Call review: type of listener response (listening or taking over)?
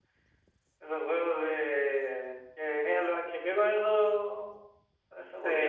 taking over